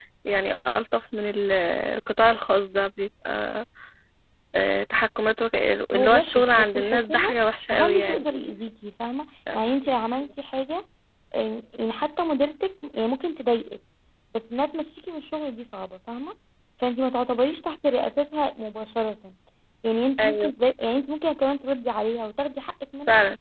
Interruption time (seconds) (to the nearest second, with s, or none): 6 s